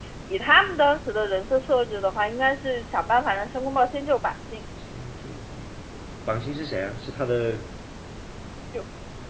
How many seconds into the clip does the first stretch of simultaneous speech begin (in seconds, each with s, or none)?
none